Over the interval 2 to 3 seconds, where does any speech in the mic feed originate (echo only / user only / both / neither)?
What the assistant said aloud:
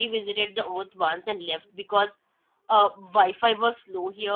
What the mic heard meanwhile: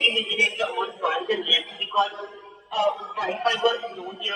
echo only